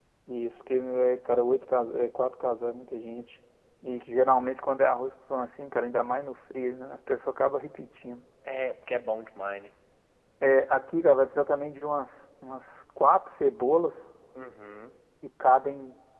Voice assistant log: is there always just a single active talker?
Yes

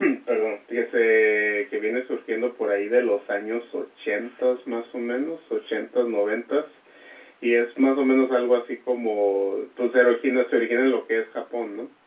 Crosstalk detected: No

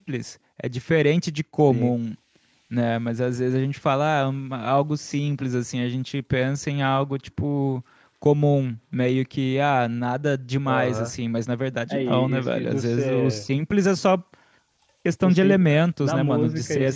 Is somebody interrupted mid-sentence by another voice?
Yes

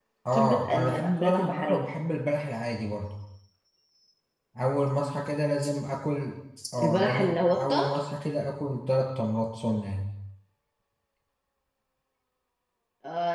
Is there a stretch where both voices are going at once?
Yes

